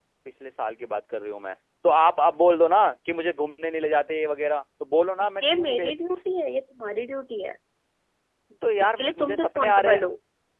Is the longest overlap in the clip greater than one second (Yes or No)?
Yes